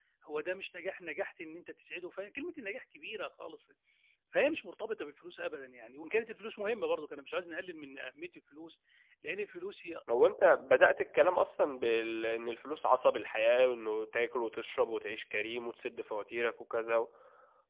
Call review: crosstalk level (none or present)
none